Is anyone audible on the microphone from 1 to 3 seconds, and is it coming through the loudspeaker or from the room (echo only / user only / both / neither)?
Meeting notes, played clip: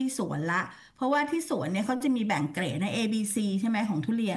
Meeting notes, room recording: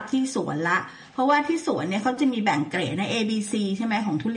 echo only